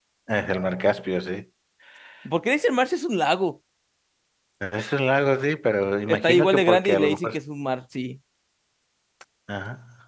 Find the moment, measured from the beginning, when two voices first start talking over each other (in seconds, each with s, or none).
6.1 s